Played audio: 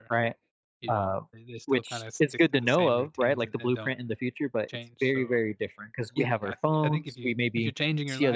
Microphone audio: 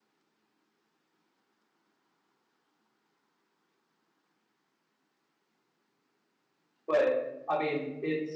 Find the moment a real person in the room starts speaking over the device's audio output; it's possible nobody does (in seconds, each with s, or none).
6.8 s